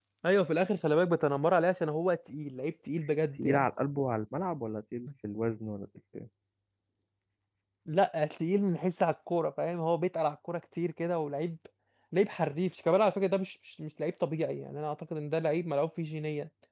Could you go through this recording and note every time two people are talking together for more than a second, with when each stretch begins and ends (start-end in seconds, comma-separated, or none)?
none